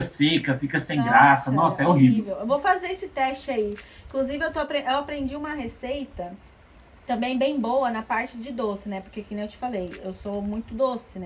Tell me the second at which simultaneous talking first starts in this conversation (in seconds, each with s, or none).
1.0 s